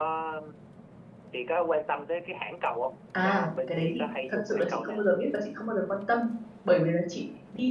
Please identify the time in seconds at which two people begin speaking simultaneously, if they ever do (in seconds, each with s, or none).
3.1 s